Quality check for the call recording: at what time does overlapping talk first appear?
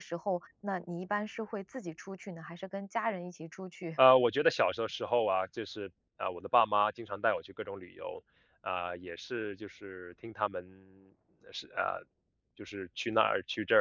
none

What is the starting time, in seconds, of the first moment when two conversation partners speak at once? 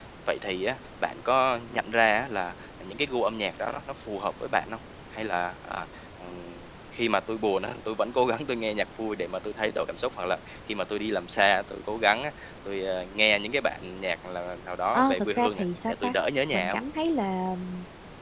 15 s

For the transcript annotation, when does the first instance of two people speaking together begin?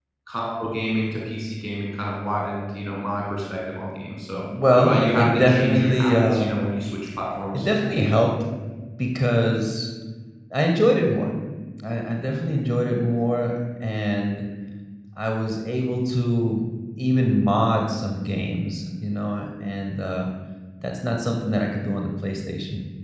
4 s

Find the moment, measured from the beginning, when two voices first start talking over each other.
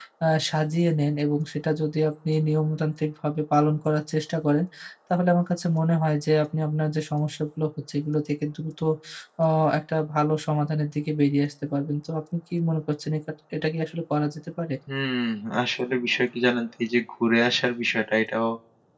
none

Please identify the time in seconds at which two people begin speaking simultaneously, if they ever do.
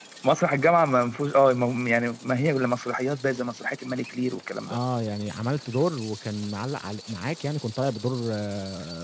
none

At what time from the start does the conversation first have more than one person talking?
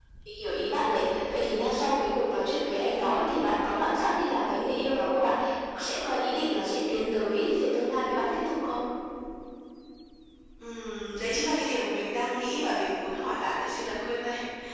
none

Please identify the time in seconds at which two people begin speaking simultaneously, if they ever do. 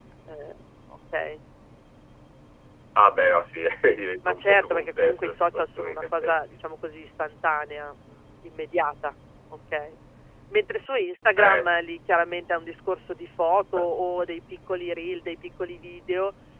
4 s

